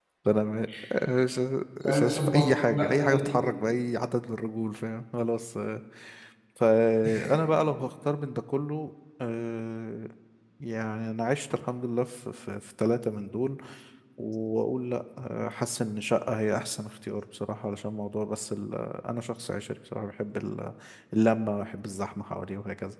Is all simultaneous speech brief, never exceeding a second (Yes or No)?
No